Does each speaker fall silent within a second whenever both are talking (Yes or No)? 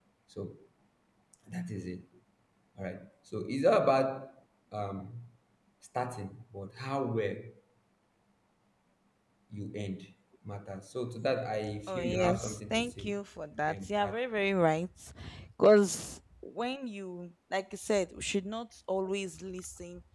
No